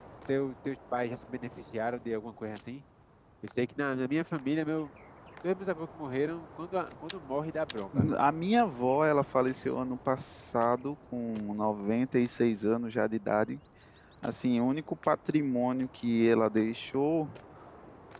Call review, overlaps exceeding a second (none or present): none